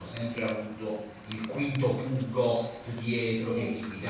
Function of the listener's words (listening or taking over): listening